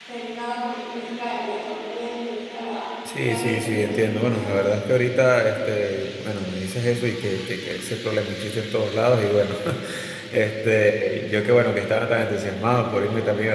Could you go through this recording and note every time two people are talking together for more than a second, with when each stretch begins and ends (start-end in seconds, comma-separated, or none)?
3.2-4.7